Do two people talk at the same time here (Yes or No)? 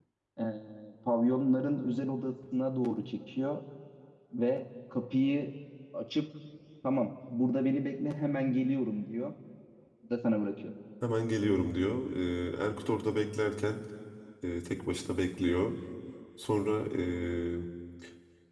No